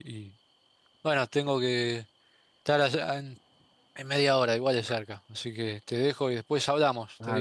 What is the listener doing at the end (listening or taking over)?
taking over